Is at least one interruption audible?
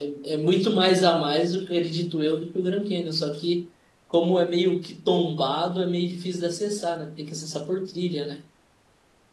No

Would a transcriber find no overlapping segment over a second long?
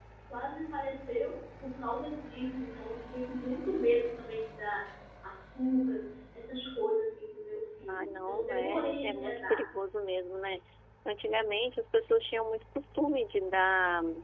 No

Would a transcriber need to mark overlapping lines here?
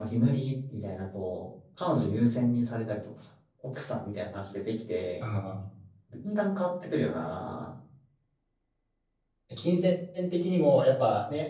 No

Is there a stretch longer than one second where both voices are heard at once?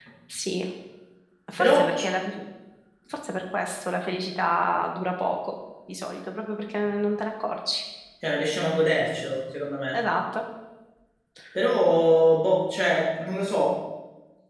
No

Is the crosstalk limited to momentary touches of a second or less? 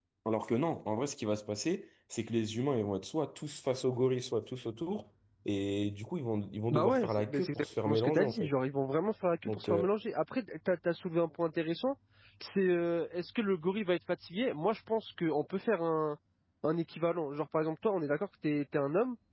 No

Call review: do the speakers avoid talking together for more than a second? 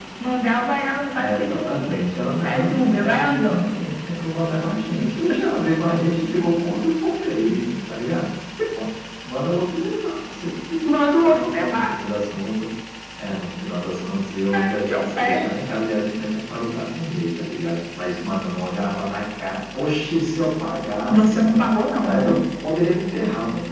No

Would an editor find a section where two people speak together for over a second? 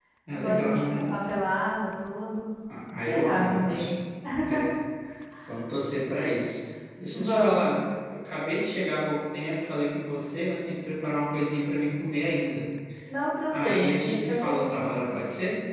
Yes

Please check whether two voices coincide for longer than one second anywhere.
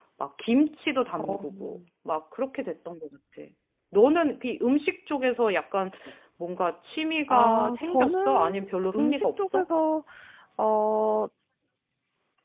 Yes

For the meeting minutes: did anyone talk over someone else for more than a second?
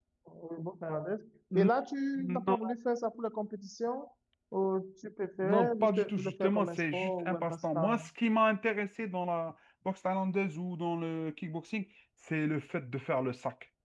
Yes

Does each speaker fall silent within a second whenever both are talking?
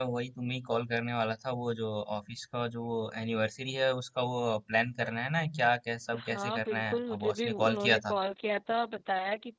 No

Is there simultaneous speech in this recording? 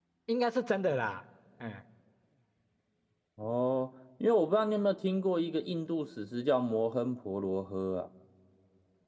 No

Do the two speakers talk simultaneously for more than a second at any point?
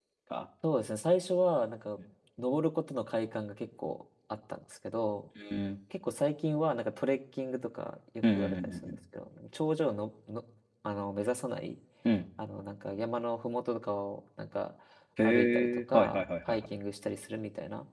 Yes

